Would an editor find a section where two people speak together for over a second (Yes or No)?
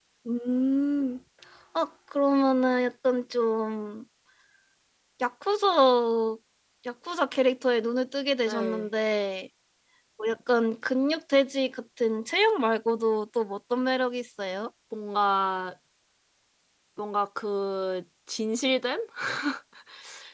No